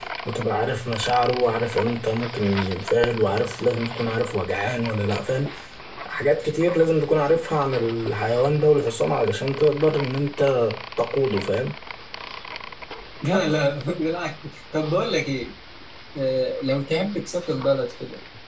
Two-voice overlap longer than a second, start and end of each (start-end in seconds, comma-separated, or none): none